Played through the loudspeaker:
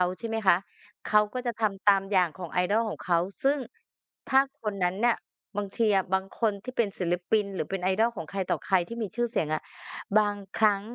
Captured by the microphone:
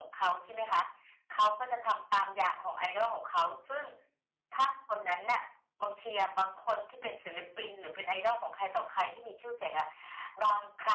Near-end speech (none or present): none